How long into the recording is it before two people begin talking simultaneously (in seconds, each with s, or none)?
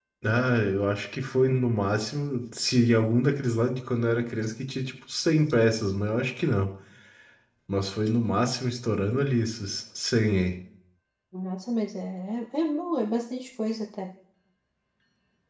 none